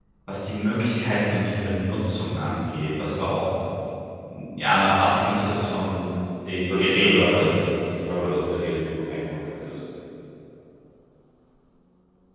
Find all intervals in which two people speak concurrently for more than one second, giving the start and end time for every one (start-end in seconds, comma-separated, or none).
6.7-7.9